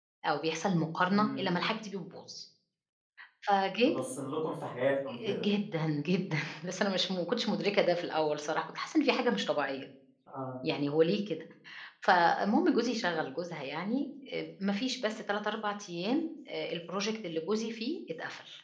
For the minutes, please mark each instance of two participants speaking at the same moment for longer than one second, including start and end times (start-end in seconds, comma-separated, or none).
none